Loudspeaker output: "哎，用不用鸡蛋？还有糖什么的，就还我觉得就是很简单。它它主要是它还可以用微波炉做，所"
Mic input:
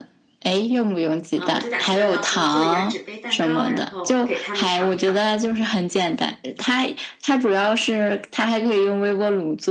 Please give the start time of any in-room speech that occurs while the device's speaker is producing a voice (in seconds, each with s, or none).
1.4 s